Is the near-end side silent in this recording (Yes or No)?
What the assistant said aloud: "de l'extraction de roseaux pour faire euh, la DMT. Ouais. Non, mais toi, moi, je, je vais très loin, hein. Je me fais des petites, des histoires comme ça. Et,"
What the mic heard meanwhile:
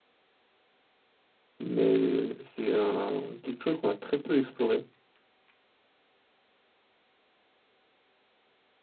No